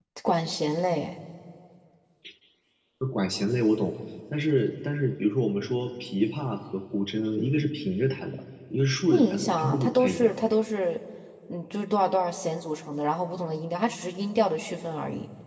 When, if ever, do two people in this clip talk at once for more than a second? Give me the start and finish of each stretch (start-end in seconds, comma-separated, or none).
9.1-10.3